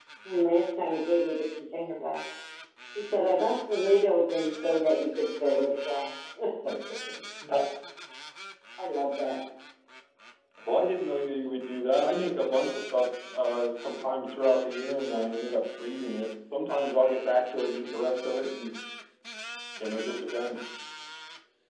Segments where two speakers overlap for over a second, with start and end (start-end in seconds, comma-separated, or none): none